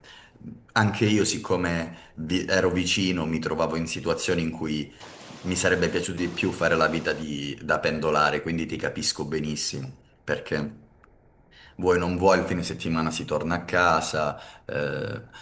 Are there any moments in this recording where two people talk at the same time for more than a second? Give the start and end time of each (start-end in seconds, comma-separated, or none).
none